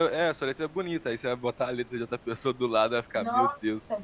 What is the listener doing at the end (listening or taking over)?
taking over